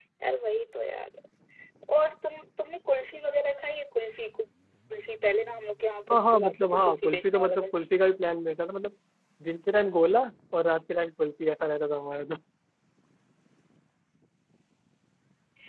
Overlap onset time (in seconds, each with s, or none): 6.1 s